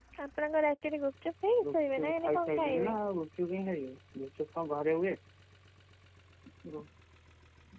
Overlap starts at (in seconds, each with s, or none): 1.6 s